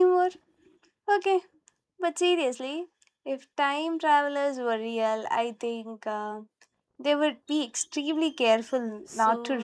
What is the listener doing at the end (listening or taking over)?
taking over